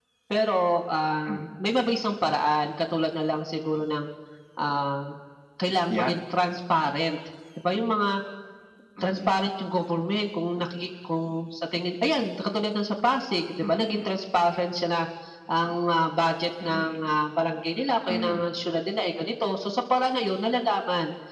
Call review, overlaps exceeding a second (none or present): none